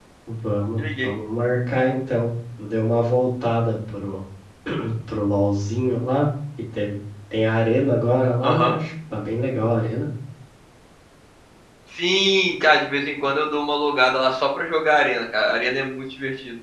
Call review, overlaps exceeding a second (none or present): none